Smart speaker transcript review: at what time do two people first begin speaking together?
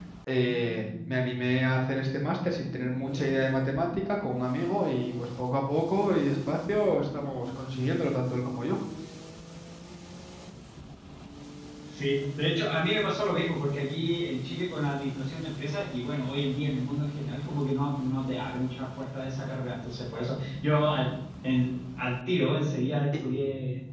none

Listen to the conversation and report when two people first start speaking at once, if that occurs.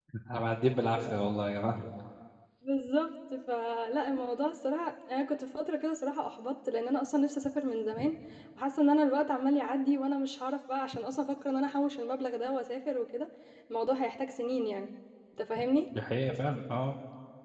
none

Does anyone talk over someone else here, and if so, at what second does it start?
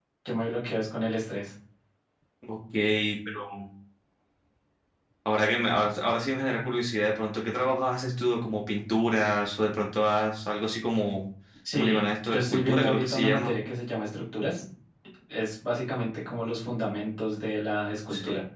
12 s

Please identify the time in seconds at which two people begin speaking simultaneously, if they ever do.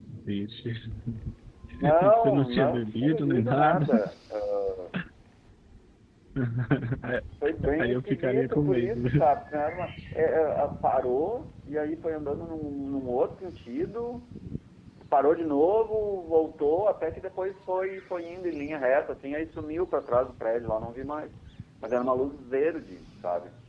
2 s

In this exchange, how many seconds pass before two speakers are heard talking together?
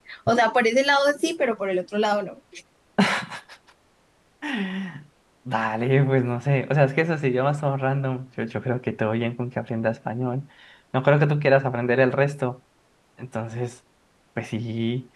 none

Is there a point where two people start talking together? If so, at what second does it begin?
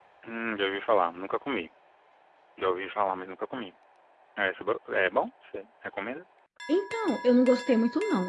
none

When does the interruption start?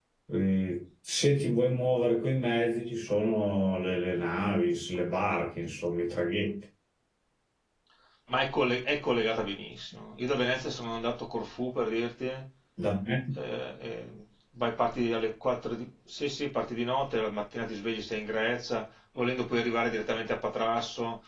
none

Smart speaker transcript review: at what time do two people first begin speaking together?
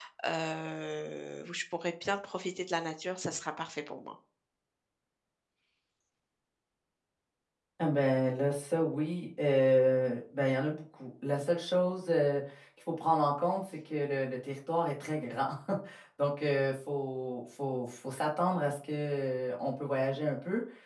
none

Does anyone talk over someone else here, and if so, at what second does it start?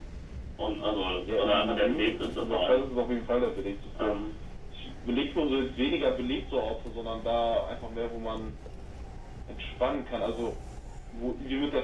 1 s

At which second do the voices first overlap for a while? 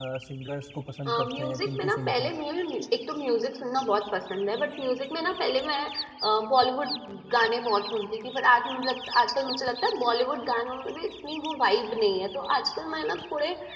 1 s

